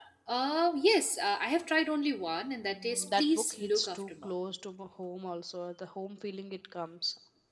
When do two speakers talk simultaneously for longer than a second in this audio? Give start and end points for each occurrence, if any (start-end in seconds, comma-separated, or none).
2.8-4.3